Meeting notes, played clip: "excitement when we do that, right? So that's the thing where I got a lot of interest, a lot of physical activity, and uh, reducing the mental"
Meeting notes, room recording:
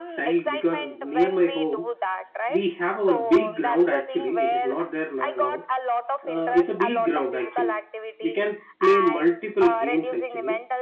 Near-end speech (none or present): present